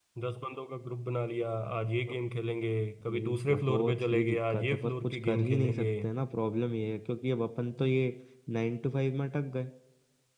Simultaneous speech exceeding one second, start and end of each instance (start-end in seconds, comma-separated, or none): 3.1-5.9